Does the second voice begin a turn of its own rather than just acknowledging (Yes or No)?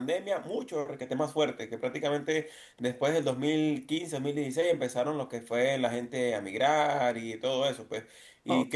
Yes